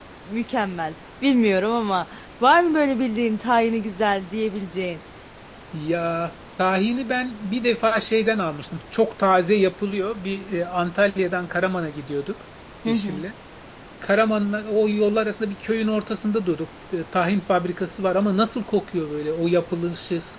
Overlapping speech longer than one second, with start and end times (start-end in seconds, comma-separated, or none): none